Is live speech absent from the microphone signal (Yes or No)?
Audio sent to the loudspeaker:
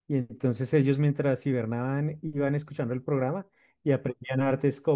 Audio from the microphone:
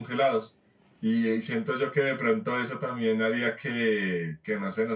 No